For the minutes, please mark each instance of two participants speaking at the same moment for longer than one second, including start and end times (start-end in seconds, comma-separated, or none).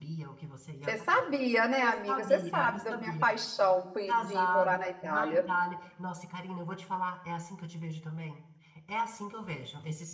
1.8-3.3, 4.1-5.5